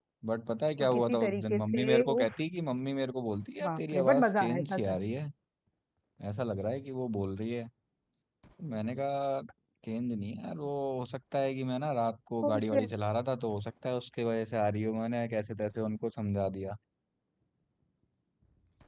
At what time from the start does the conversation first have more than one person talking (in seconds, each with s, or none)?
0.8 s